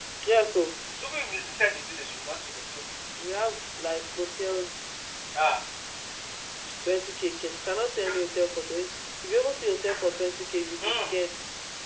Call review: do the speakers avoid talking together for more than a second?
Yes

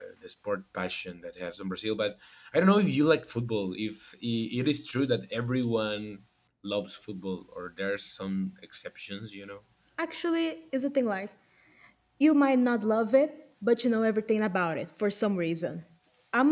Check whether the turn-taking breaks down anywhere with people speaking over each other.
No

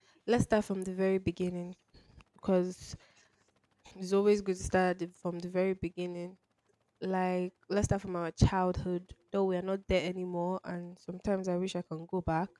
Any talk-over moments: No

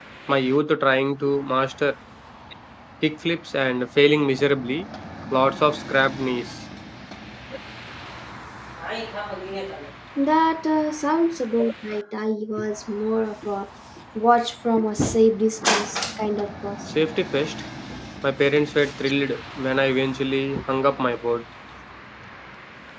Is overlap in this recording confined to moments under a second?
Yes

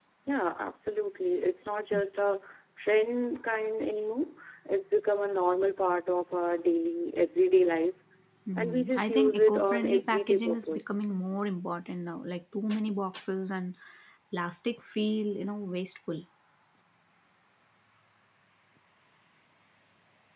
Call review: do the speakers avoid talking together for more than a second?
No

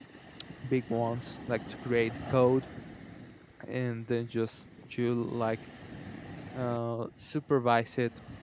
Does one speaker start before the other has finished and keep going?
No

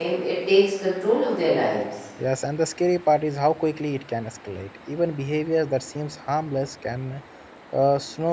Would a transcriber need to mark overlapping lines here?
No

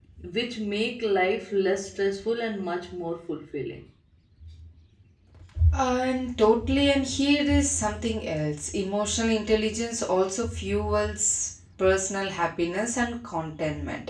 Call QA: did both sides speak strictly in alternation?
Yes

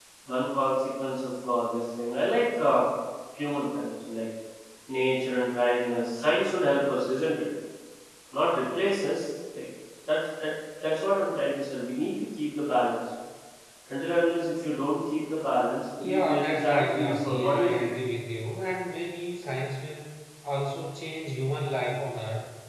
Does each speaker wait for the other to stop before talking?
No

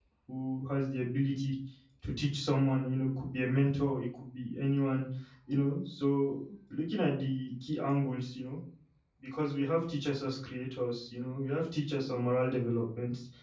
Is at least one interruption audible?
No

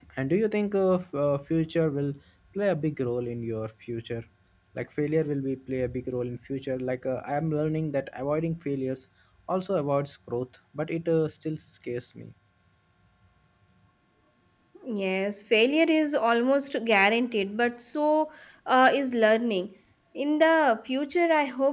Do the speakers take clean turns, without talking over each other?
Yes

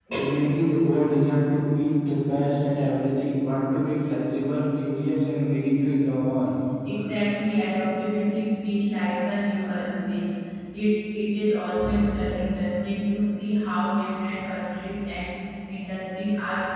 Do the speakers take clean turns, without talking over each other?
Yes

